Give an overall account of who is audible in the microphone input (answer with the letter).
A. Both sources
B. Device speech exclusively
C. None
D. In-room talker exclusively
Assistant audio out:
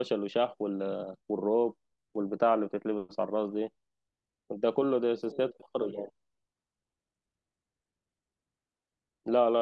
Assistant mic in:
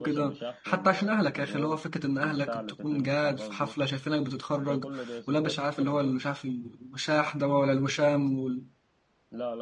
A